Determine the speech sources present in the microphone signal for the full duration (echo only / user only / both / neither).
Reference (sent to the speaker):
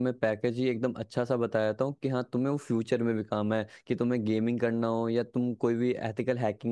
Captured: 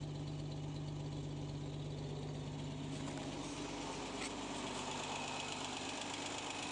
neither